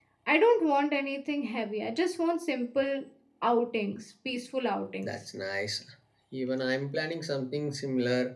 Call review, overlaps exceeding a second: none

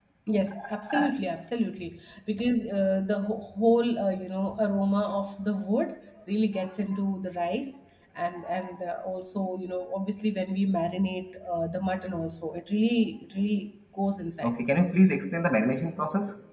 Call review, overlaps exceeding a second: none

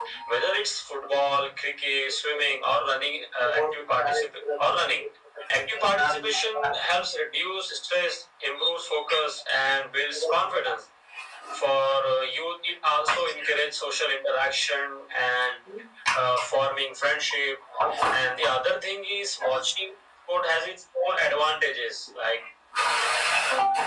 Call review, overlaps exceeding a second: present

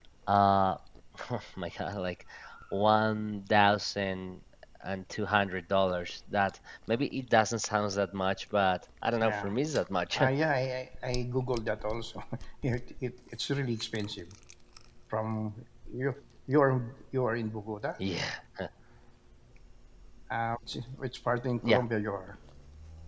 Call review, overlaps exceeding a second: none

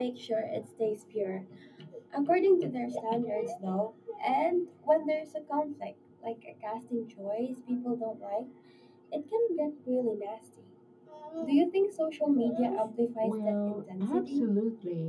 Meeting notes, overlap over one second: present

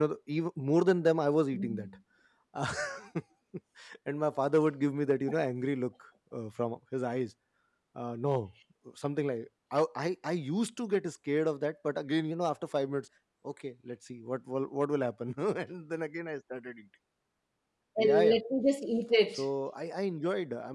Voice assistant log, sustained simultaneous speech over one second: none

